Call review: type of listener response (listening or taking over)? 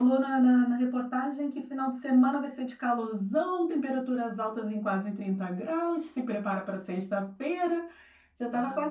listening